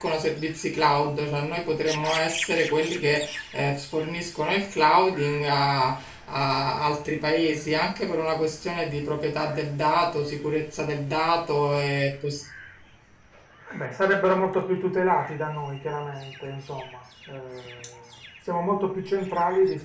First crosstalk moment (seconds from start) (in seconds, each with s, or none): none